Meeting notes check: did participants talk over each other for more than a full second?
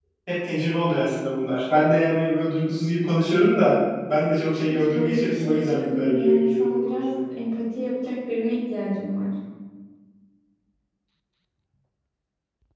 Yes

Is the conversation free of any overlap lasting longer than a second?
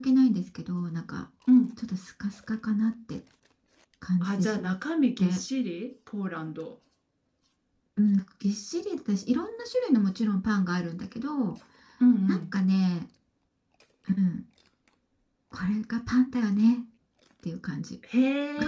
Yes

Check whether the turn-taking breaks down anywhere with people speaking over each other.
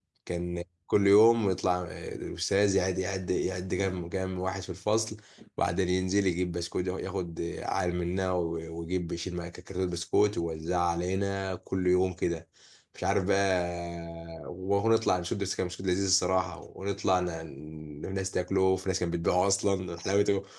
No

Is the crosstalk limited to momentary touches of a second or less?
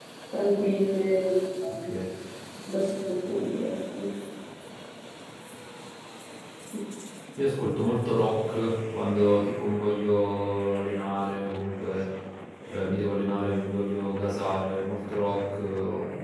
Yes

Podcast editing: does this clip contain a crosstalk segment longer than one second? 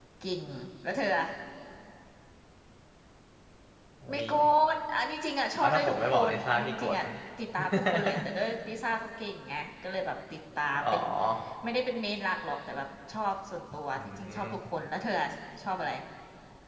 Yes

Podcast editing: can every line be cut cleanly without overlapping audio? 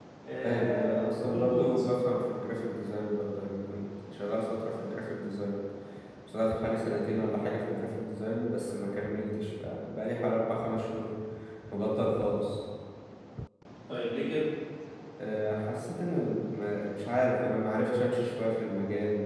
No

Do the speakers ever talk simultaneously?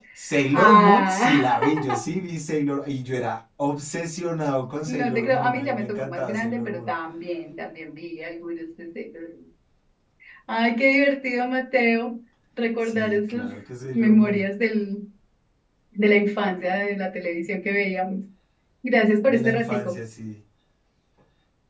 Yes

